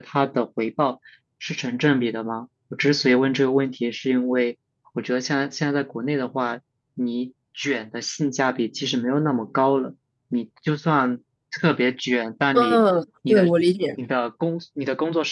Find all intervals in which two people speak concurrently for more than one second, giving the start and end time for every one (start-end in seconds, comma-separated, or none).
none